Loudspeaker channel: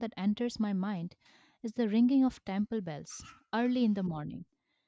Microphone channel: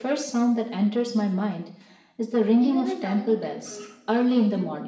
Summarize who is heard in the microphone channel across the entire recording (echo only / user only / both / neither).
both